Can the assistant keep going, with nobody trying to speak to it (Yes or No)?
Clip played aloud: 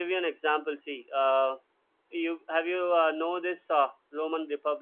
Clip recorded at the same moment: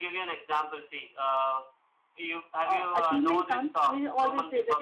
No